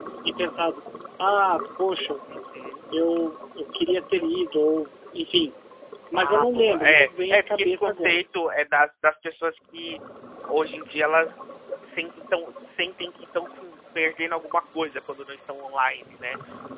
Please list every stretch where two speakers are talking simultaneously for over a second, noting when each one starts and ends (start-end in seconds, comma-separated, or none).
6.1-8.2